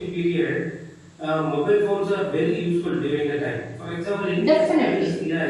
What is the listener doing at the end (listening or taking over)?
listening